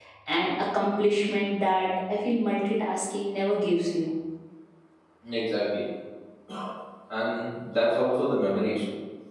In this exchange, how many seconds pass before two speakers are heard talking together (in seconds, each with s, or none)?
none